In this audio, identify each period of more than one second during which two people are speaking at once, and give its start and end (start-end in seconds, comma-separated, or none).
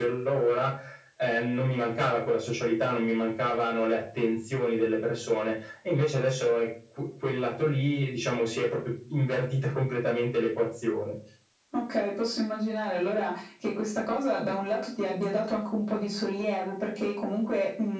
none